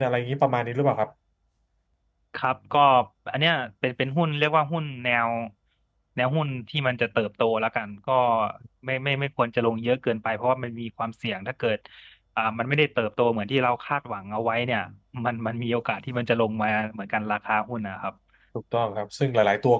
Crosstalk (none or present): none